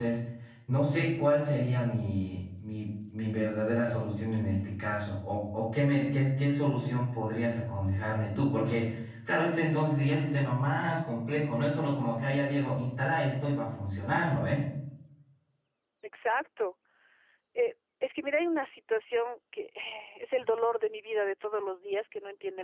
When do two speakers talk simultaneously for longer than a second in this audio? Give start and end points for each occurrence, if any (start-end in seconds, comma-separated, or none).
none